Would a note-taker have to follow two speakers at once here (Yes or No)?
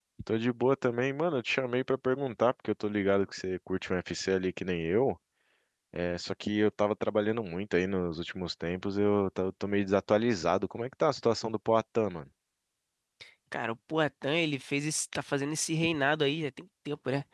No